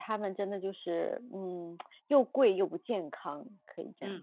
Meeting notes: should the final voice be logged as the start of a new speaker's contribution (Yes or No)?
Yes